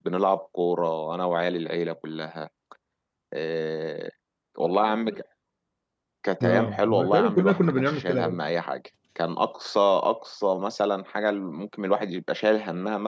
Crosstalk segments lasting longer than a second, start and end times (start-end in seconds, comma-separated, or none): 6.4-8.4